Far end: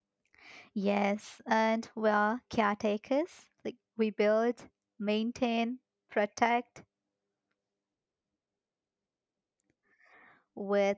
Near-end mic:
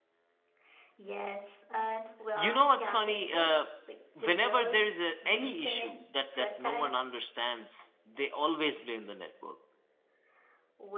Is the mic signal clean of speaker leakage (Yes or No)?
No